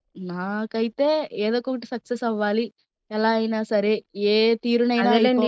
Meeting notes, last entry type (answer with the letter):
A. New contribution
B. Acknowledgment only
A